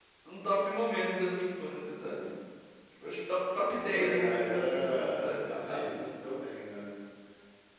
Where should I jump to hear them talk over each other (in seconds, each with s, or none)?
3.8 s